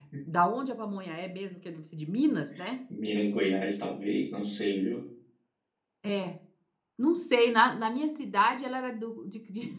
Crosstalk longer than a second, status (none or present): none